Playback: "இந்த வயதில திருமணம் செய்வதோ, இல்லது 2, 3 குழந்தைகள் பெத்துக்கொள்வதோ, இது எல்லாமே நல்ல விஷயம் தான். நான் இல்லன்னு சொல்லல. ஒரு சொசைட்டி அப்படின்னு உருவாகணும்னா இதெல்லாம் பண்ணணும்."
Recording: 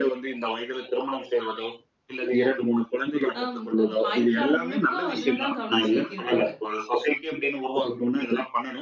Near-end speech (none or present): present